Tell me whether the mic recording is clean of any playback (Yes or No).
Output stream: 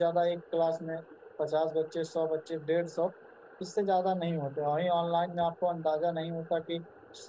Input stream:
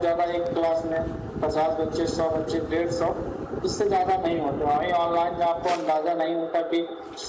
No